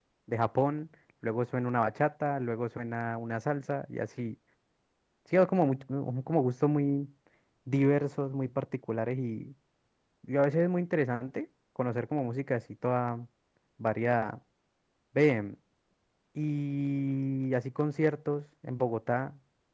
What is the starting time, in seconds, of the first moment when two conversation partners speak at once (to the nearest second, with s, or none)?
none